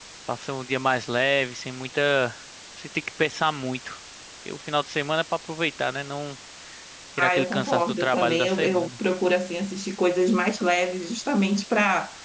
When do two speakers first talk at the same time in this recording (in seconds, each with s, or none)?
7.2 s